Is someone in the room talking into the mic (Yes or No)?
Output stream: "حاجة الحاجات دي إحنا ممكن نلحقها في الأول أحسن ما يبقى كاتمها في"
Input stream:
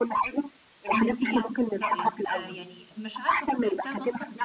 Yes